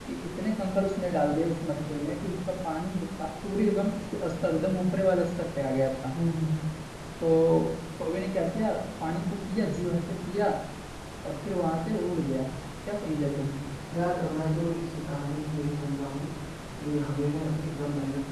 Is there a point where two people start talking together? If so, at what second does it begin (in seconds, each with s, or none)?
none